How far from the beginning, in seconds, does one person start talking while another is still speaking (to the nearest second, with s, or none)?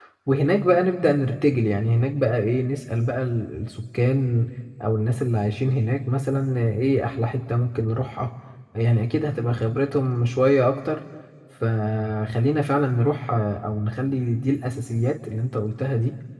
none